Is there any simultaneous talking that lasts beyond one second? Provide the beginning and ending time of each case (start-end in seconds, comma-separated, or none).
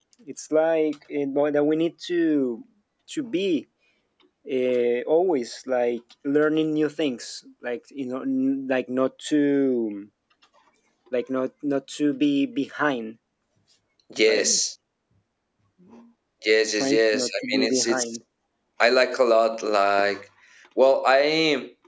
16.8-18.0